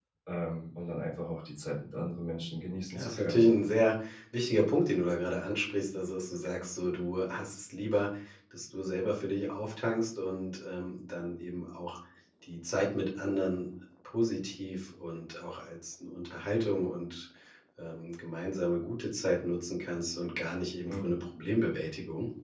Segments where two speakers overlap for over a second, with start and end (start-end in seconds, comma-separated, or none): none